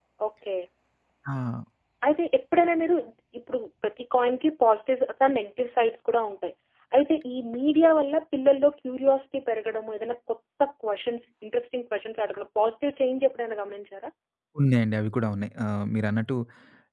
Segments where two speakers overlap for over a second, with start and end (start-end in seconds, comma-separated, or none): none